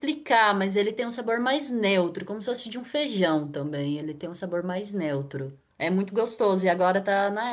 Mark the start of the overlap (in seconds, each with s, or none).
none